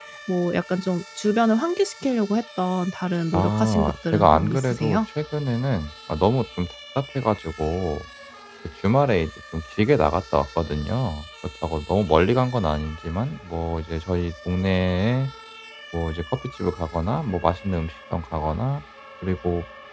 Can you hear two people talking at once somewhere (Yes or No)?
Yes